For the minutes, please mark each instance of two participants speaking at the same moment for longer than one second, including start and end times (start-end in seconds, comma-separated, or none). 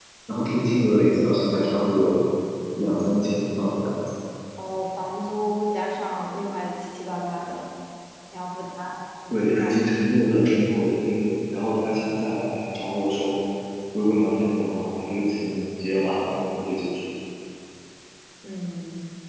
none